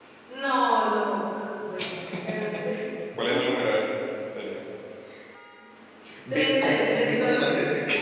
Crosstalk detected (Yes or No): Yes